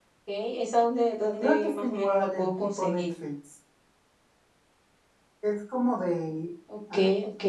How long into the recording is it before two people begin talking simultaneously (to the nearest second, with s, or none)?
1 s